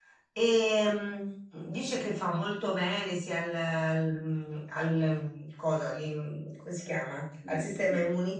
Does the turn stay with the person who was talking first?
Yes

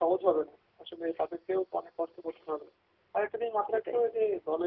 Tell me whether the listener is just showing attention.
Yes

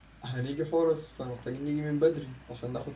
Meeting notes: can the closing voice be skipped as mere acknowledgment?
Yes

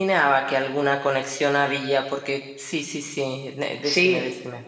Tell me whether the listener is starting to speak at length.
Yes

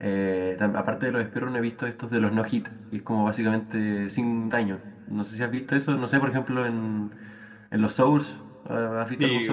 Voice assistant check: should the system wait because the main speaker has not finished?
No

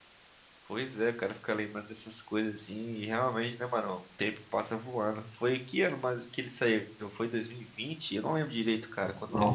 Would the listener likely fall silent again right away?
No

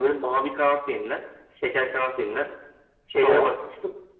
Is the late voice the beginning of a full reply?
No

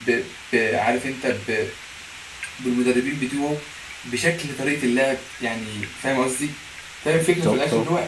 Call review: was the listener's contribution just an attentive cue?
Yes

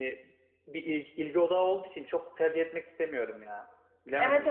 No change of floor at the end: No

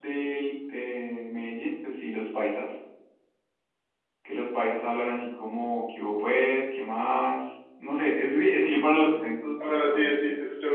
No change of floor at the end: No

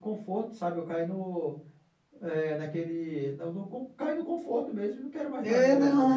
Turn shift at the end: Yes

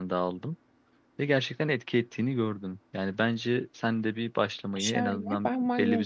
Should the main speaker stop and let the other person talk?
Yes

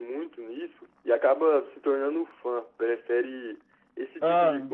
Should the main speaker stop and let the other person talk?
No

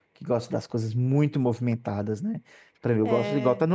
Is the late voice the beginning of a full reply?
No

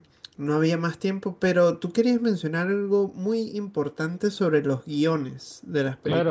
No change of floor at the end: No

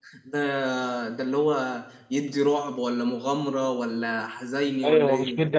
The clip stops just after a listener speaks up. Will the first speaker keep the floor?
No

